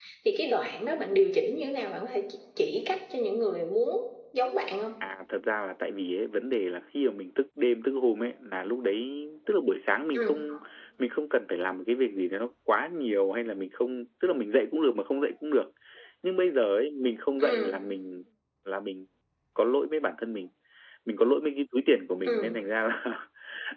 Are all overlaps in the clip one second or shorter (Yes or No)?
Yes